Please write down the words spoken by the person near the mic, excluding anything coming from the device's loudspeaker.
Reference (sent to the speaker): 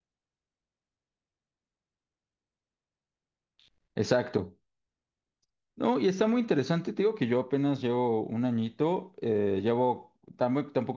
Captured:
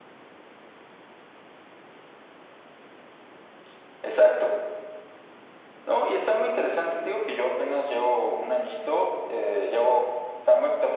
none

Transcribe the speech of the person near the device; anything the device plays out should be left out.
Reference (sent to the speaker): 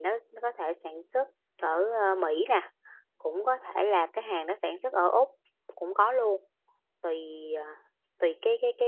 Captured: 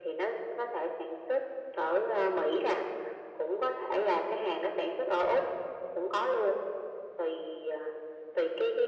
none

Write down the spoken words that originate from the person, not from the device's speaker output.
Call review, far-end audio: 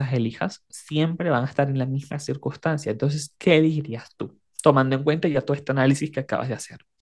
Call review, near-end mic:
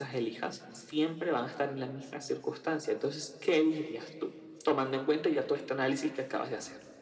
none

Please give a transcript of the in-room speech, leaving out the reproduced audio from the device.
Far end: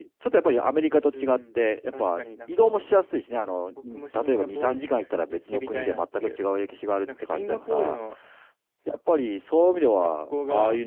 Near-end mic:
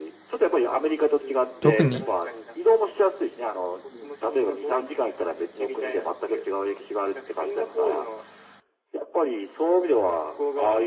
特に

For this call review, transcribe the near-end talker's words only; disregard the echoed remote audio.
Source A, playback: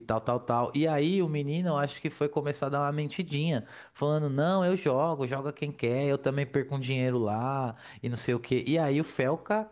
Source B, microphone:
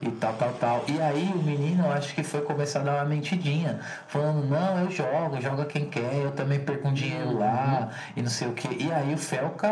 Uhum.

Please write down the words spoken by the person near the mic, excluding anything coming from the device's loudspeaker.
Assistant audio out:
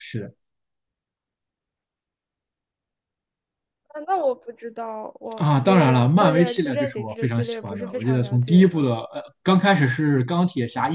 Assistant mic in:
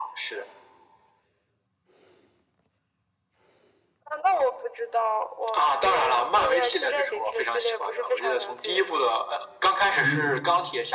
我

